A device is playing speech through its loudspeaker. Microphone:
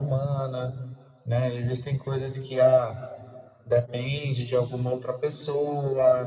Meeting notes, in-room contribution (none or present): none